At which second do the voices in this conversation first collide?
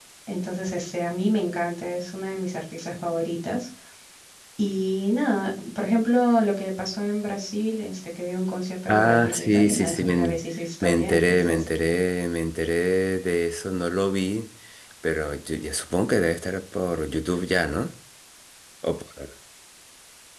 8.9 s

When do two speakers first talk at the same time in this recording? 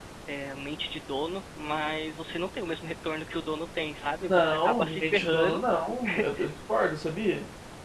4.3 s

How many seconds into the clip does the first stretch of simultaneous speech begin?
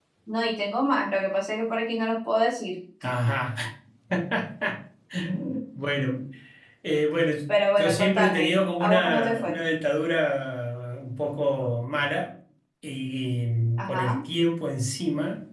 7.8 s

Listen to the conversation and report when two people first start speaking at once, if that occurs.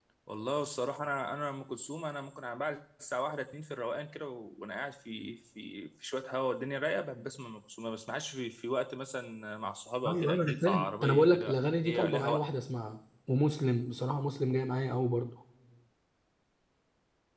10.0 s

